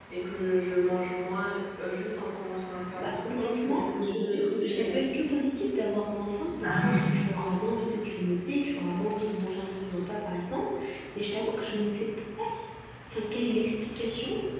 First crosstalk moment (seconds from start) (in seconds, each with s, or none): 3.0 s